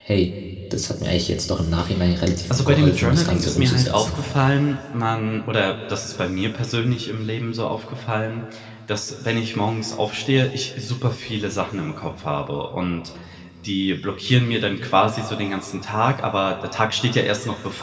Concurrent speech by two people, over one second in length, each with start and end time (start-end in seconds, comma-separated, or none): 2.6-4.2